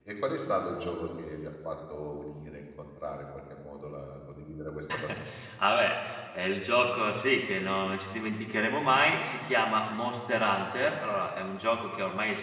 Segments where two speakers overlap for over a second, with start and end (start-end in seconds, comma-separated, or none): none